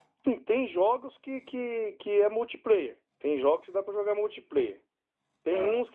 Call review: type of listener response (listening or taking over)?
listening